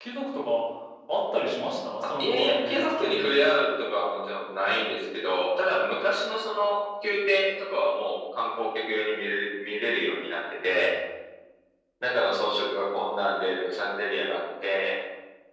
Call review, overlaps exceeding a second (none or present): present